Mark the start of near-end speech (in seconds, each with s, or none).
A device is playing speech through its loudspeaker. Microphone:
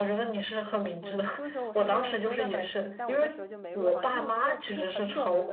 0.6 s